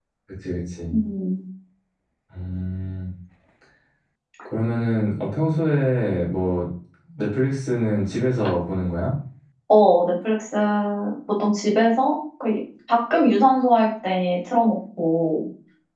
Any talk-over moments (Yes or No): No